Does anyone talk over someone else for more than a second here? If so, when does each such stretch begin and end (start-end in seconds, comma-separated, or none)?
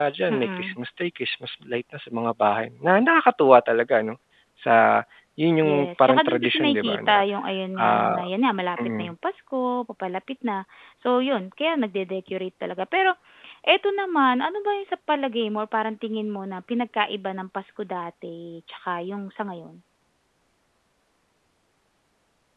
5.7-7.2